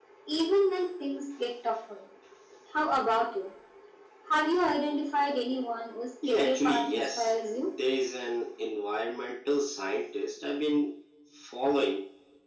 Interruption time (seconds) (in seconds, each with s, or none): 6.2 s